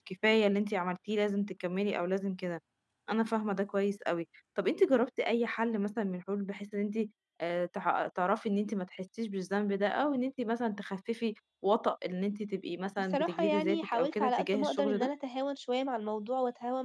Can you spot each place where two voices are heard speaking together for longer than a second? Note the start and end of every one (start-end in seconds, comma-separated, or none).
13.1-15.1